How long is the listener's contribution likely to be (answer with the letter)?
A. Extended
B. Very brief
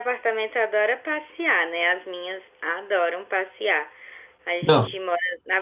B